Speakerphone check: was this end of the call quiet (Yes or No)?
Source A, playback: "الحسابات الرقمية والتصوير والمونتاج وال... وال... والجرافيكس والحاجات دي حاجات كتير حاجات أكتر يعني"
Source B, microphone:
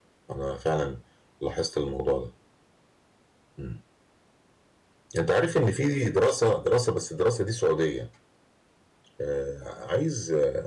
No